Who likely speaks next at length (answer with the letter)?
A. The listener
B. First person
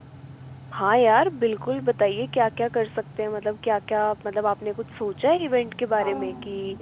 A